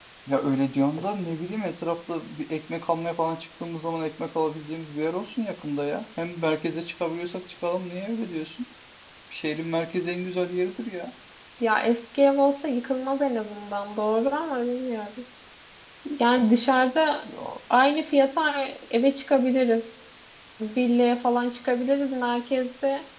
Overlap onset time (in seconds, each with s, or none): none